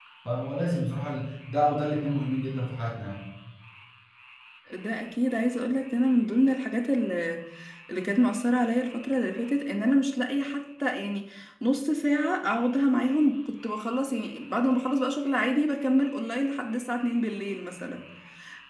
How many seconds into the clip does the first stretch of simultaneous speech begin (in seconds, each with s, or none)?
none